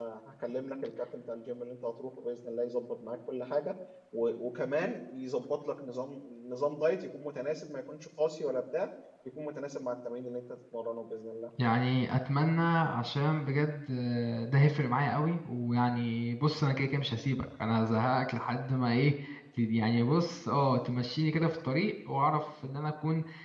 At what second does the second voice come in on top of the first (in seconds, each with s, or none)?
none